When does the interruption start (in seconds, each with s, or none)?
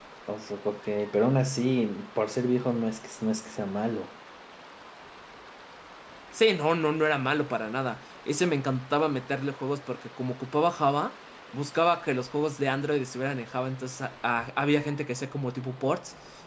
none